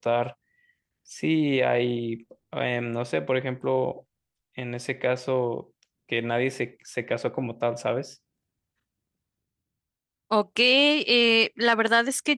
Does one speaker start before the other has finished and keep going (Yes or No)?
No